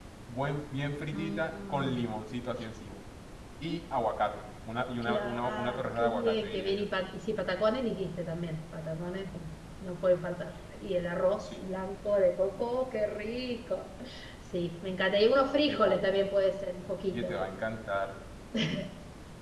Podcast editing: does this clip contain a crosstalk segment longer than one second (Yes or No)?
Yes